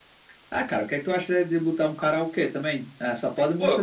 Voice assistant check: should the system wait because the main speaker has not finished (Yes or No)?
No